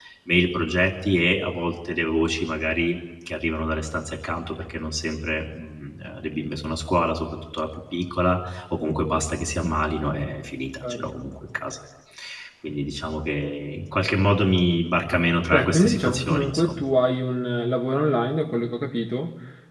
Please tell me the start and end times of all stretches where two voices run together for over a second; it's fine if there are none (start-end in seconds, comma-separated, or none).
15.5-16.8